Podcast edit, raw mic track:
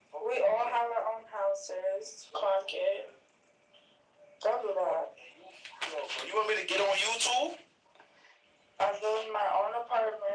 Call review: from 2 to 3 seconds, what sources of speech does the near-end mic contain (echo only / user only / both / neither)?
echo only